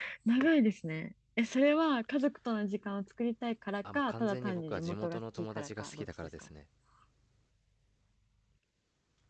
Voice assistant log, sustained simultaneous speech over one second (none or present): present